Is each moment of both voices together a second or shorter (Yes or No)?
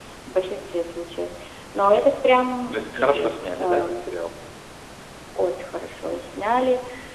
No